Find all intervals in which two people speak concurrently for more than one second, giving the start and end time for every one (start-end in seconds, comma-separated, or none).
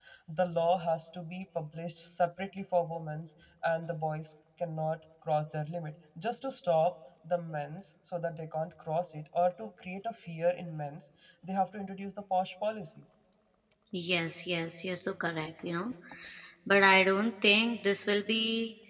none